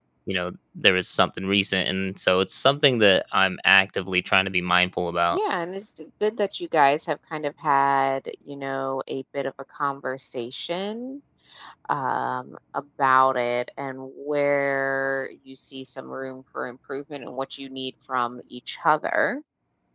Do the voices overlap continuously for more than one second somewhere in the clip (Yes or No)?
No